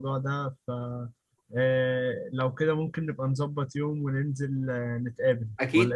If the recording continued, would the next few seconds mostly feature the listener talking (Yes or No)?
Yes